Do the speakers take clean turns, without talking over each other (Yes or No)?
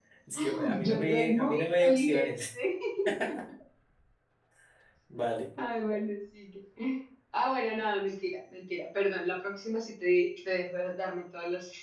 No